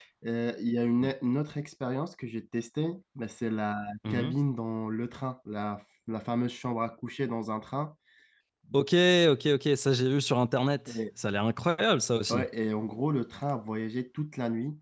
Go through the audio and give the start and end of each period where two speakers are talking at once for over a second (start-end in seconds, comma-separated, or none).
none